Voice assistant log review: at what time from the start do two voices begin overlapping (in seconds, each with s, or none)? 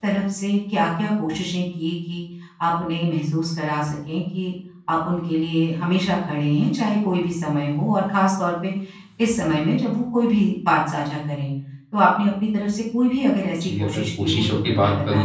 13.6 s